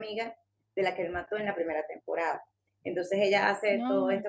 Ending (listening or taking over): listening